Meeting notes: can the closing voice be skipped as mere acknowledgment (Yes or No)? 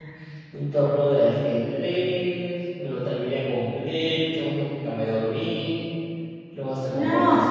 Yes